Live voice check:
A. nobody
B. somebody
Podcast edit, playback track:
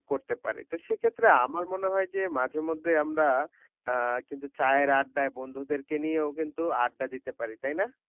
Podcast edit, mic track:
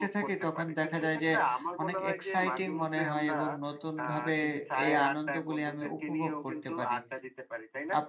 B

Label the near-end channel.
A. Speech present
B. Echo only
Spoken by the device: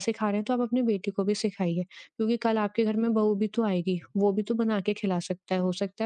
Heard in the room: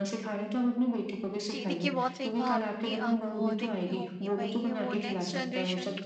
A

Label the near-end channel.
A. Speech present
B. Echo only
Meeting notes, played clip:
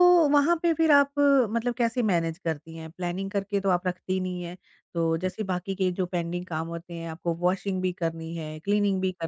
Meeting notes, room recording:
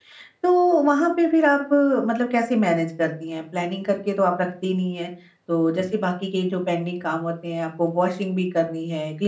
B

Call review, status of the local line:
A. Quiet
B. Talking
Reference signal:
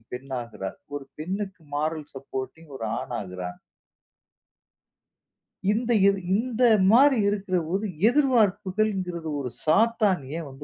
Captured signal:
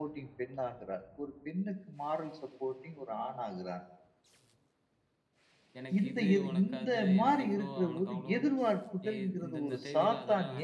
B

